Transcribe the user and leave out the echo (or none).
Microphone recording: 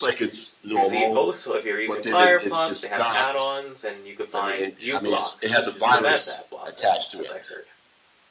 there's e- also if you're using Firefox, they have add-ons and you could find uBlock, which is the best ad blocker, as I heard.